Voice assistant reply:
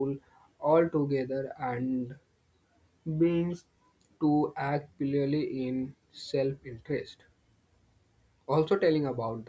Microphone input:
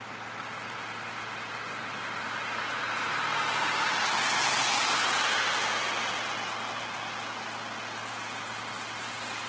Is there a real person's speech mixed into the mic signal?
No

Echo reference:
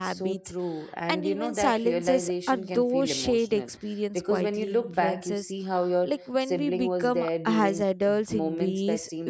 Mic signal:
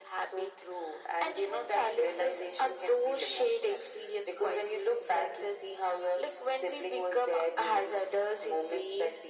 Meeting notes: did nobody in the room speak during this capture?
Yes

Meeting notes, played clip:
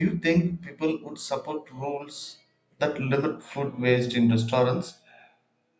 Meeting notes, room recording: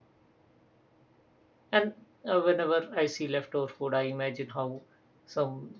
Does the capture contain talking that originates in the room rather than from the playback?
Yes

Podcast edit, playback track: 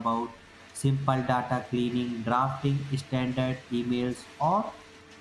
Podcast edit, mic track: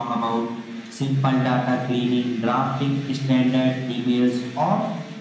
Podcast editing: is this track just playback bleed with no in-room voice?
Yes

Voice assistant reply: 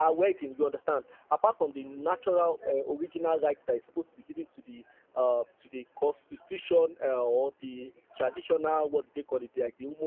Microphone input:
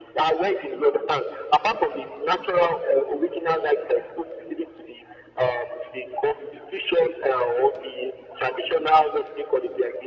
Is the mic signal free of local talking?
Yes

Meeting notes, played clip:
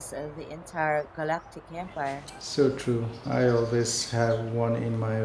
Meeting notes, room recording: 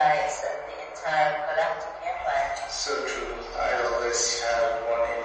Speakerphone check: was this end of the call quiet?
Yes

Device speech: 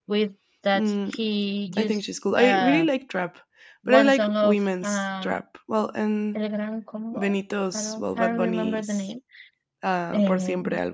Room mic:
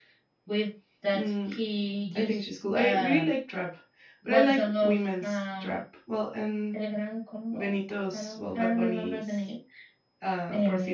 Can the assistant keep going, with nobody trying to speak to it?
Yes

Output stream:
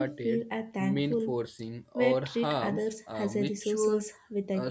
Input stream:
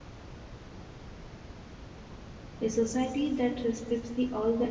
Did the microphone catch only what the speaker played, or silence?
No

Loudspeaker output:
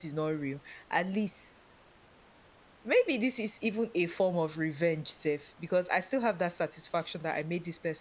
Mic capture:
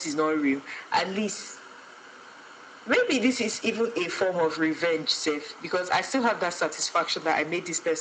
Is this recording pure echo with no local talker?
Yes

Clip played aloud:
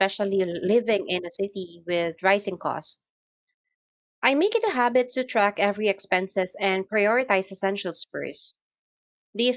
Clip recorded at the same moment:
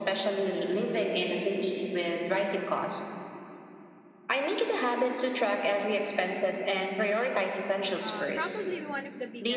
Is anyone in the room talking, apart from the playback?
Yes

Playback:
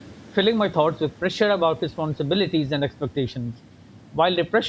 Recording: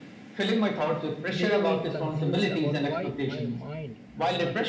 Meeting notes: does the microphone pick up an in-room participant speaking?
Yes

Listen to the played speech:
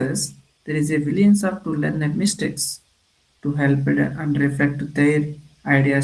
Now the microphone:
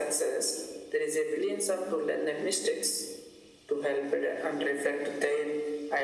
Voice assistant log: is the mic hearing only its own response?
Yes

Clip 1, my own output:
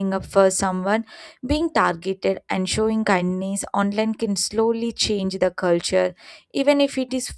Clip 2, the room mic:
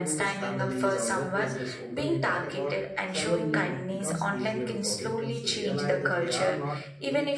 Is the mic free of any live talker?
No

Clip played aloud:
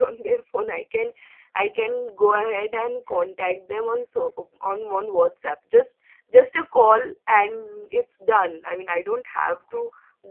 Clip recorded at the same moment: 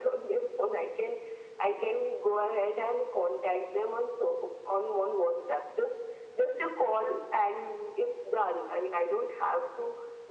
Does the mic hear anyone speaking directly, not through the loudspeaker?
No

